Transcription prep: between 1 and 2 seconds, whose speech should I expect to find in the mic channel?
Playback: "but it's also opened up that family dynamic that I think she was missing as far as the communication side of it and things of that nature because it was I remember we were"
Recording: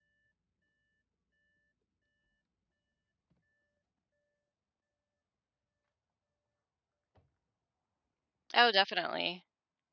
neither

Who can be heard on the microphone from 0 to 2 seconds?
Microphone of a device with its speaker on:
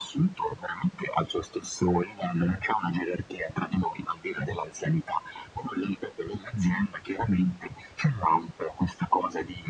echo only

